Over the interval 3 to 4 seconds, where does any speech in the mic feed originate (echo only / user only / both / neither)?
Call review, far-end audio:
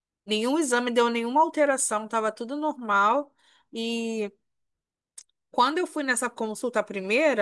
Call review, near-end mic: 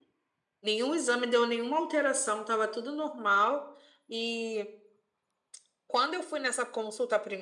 echo only